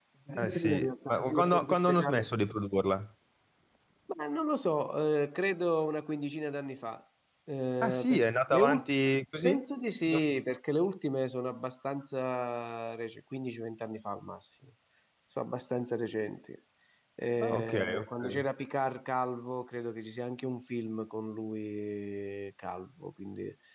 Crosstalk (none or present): present